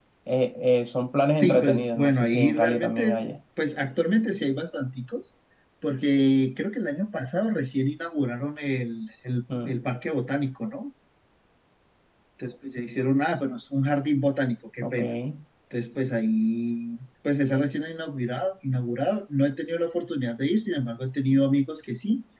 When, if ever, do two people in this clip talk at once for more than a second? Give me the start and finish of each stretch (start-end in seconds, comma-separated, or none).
1.4-3.2